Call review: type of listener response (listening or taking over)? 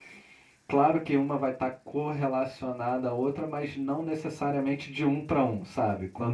listening